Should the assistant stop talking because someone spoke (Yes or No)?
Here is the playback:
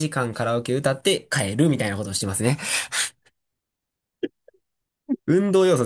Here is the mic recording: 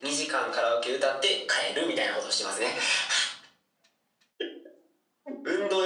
No